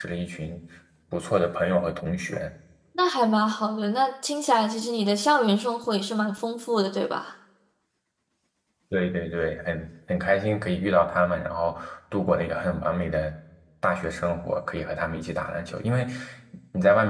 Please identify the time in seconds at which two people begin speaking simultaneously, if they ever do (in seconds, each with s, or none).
none